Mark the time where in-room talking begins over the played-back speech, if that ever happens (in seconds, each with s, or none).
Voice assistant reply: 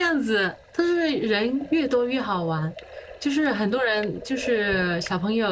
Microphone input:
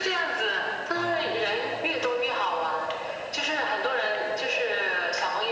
0.9 s